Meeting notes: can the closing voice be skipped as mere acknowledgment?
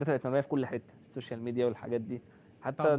No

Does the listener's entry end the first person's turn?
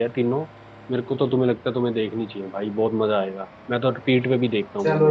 Yes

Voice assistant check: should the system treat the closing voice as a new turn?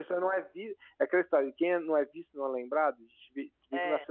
No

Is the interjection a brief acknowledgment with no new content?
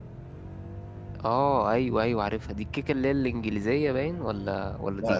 No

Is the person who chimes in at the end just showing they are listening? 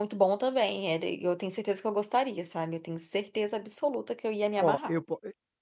No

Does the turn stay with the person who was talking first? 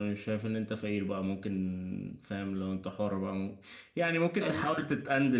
Yes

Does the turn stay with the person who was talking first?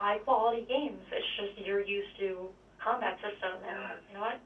No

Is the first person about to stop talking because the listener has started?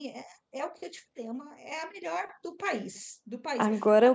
Yes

